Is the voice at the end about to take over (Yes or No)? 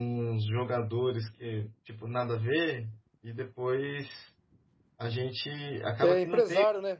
Yes